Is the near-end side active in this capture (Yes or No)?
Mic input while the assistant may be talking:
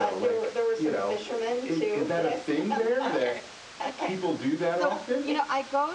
Yes